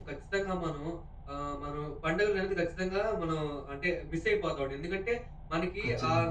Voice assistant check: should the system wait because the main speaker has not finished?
Yes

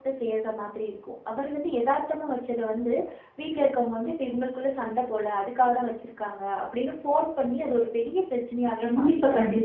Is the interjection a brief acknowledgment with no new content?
No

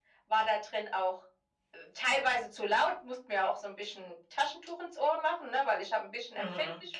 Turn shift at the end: Yes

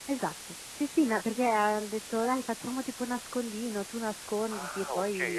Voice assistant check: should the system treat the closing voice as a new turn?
Yes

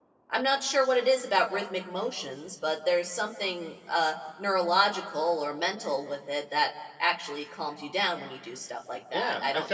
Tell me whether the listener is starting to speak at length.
Yes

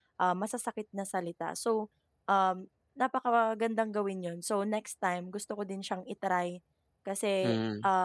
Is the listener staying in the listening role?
Yes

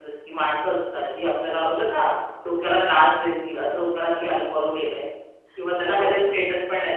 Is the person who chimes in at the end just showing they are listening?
Yes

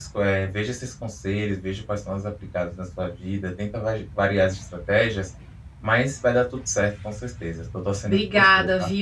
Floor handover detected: Yes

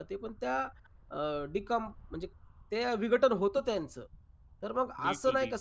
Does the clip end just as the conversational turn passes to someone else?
No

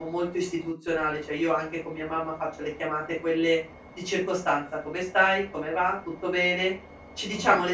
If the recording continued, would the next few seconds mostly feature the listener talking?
No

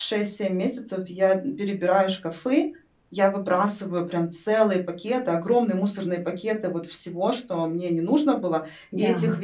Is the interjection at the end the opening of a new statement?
No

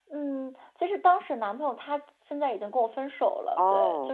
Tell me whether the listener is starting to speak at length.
Yes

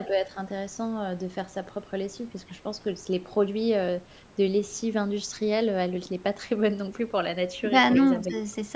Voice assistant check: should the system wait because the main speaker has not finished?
No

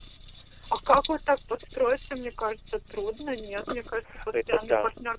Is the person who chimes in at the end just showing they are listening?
No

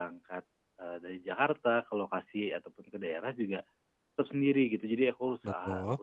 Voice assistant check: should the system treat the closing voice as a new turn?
No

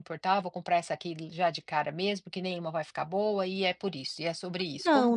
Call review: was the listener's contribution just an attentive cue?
No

